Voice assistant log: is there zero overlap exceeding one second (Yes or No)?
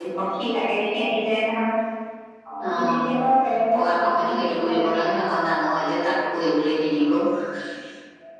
No